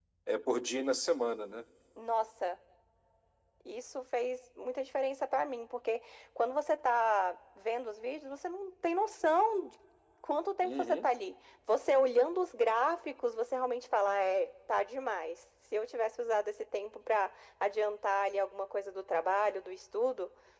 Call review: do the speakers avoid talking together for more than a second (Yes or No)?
Yes